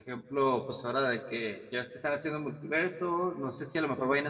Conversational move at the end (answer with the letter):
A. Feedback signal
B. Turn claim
A